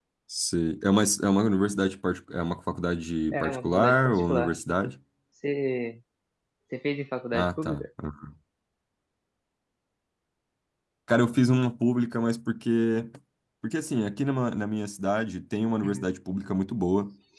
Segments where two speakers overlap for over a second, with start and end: 3.3-4.6

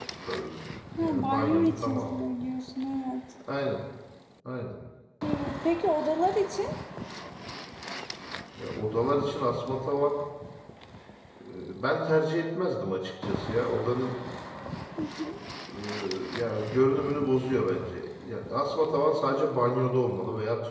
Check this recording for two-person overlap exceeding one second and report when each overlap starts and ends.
1.0-2.2

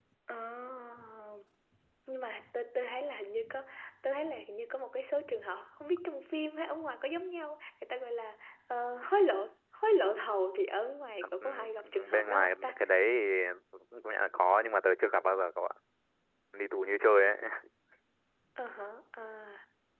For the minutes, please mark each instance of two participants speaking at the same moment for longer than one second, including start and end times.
11.2-12.8

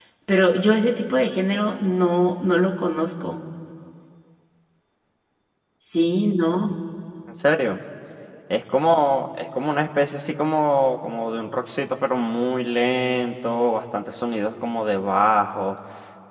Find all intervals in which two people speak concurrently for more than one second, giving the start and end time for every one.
none

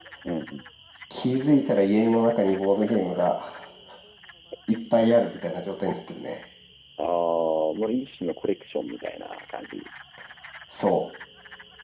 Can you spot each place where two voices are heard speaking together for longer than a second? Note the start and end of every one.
none

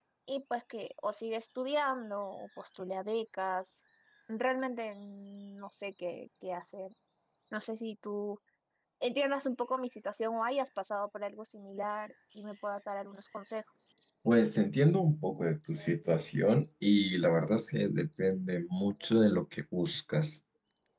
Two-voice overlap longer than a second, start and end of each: none

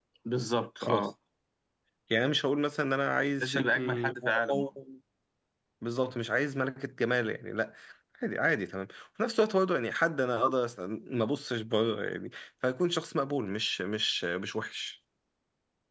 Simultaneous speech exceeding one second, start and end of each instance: 3.4-4.7

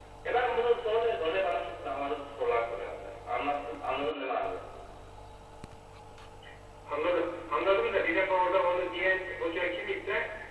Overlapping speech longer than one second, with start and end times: none

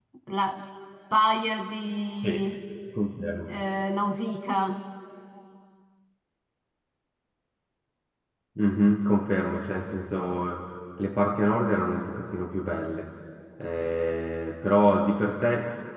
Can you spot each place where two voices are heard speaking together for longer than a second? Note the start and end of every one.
none

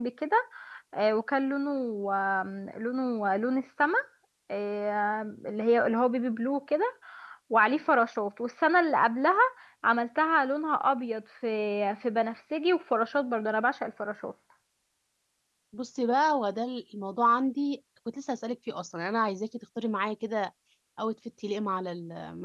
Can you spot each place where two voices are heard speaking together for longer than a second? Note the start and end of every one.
none

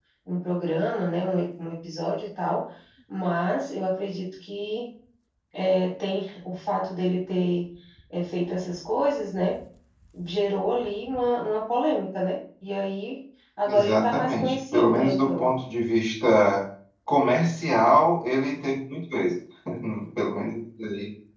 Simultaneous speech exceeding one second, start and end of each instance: 13.7-15.5

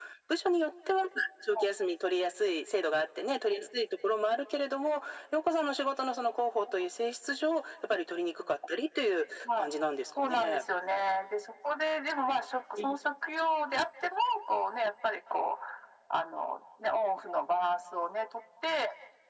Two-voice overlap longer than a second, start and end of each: none

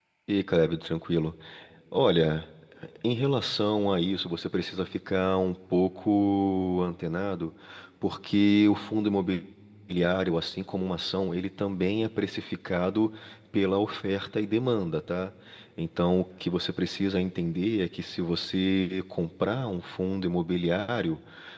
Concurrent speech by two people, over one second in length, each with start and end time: none

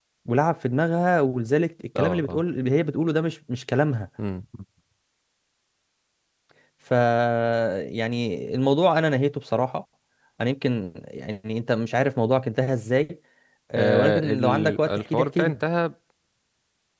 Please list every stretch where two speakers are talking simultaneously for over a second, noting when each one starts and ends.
13.8-15.5

